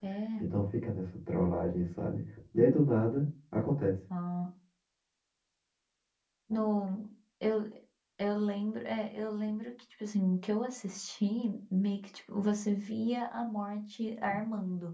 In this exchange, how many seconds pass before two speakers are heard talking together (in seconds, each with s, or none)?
none